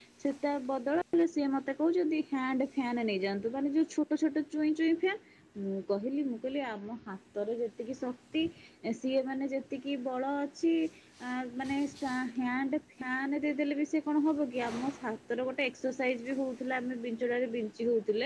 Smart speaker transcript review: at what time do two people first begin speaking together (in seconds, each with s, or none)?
none